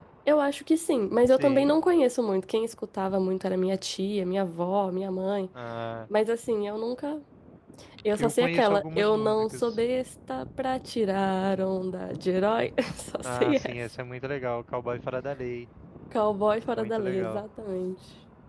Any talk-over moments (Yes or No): Yes